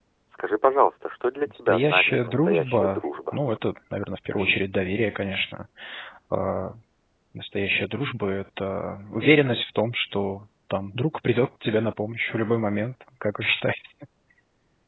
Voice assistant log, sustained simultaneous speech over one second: present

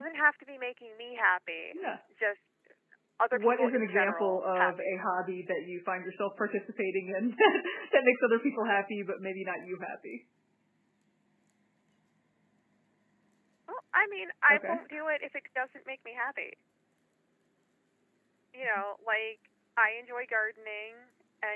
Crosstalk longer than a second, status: present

